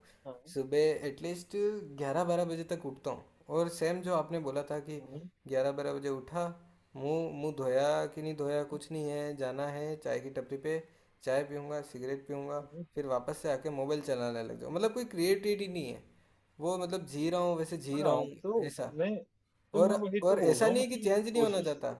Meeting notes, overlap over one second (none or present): present